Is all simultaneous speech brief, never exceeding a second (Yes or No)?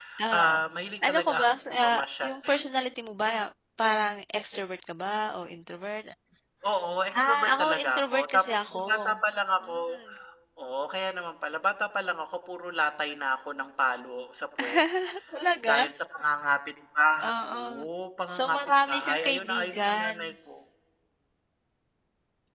No